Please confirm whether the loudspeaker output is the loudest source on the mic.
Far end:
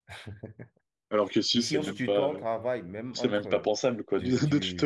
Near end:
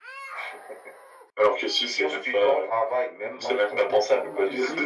Yes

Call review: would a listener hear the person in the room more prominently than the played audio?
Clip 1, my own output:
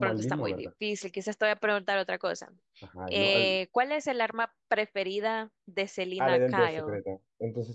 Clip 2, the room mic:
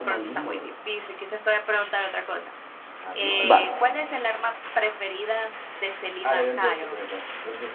Yes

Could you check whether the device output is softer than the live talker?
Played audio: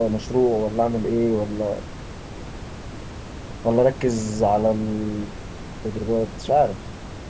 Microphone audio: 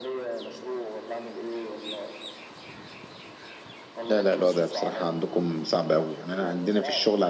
Yes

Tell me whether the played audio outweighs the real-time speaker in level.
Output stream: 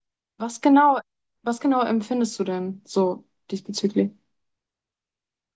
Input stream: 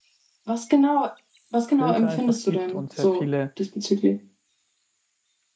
Yes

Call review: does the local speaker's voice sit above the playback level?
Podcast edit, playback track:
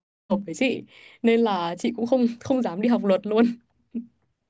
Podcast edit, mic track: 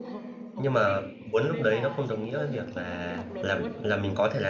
Yes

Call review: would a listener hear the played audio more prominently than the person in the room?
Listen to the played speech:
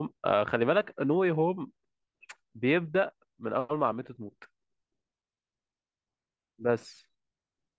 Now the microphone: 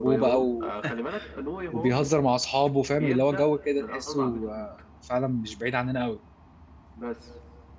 No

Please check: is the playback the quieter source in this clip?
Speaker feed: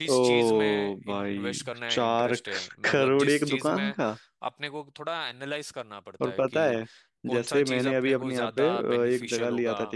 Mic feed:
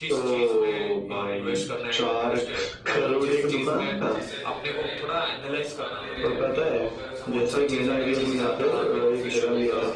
No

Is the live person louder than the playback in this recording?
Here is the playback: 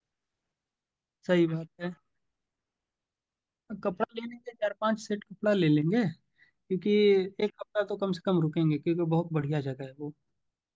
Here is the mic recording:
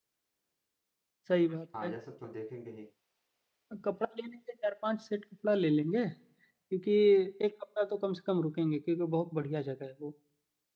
No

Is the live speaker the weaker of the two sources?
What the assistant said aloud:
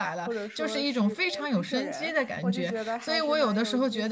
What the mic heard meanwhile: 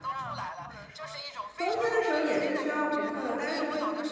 No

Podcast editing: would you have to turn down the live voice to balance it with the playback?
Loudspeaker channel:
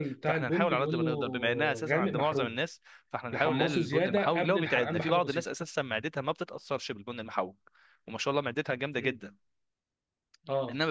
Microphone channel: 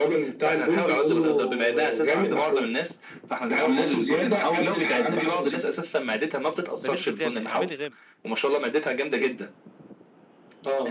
No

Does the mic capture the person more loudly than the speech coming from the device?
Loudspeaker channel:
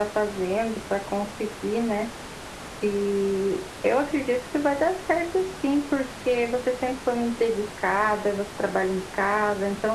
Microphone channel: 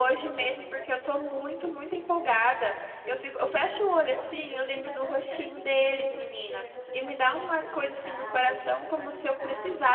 Yes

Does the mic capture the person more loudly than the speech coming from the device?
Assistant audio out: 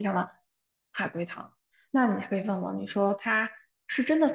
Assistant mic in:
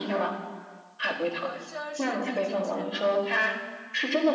No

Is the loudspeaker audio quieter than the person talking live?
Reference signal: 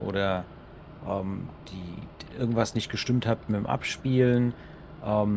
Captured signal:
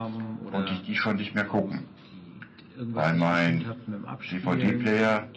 Yes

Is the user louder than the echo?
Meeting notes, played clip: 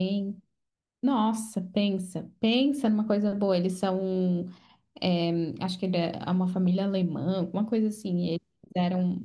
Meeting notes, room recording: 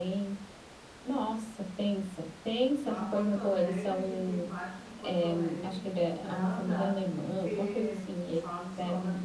No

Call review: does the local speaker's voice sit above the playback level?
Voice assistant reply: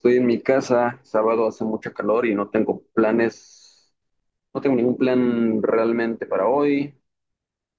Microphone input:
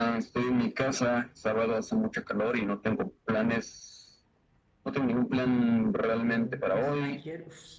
No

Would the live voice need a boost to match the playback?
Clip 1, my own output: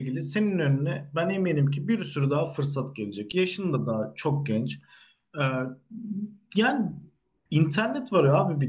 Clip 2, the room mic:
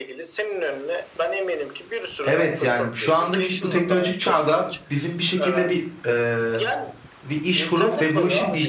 No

